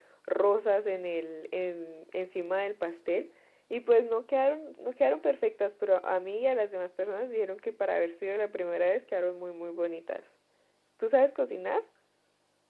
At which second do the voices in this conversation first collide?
none

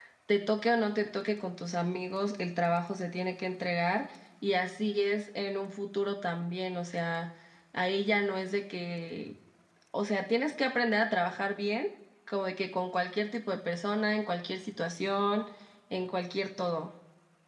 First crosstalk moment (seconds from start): none

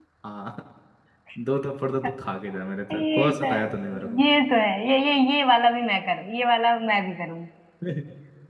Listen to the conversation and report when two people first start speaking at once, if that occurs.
3 s

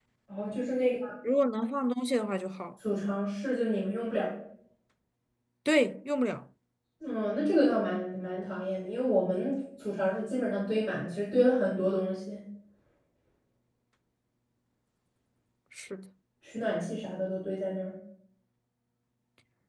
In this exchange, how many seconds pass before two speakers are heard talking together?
none

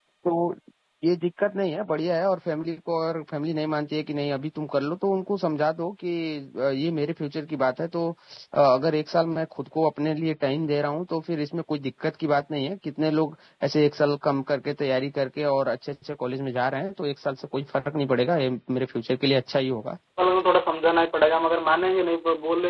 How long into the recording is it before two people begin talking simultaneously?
none

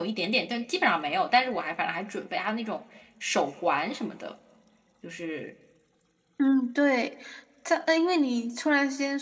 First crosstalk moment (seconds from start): none

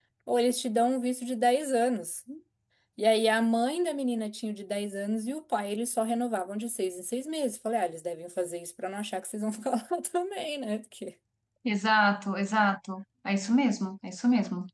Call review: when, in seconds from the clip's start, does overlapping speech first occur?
none

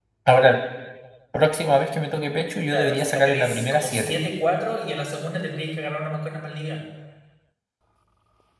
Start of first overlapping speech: 3 s

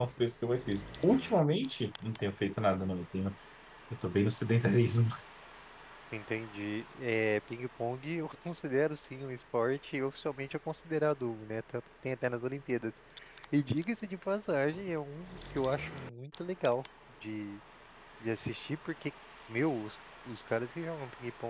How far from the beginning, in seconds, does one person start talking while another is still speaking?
none

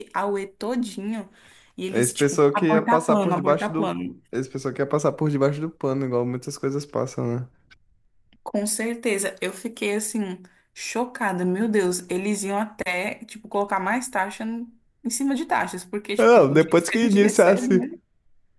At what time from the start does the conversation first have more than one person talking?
2 s

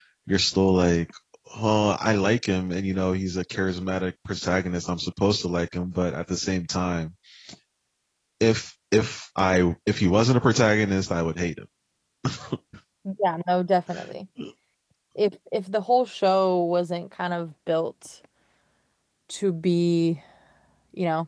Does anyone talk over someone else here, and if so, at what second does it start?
none

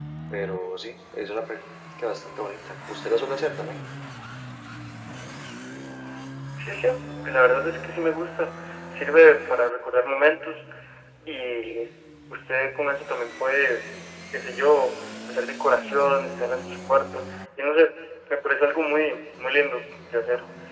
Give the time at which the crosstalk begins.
none

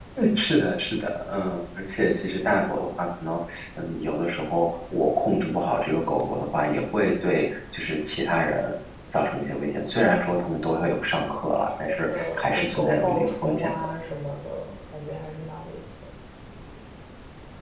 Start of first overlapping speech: 12 s

